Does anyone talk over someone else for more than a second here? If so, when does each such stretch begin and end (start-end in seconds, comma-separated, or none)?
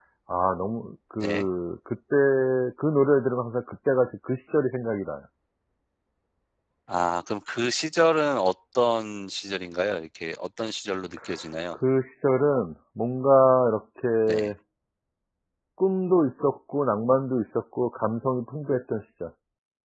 none